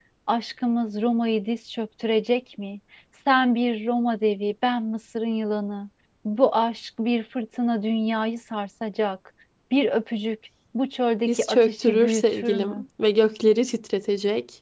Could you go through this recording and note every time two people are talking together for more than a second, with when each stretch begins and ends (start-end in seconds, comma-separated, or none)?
11.2-12.8